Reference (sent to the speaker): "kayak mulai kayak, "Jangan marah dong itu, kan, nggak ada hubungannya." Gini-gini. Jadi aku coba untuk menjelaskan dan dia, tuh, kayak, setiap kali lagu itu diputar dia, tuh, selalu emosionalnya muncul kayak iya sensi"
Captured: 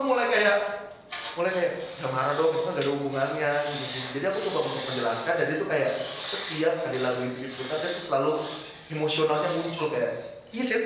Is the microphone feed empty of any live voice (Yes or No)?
Yes